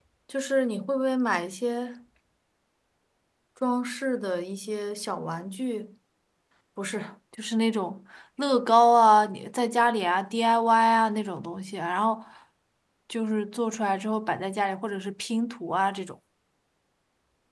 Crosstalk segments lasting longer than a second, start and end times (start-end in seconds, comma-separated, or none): none